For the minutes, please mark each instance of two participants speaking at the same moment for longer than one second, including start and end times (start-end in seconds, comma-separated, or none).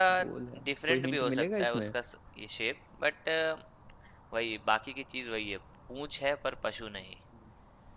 0.6-1.9